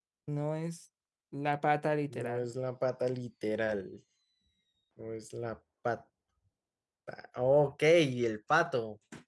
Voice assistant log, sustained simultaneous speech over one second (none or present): none